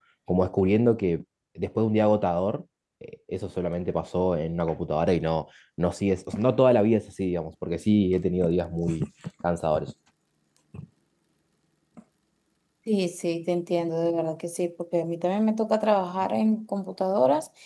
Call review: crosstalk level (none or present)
none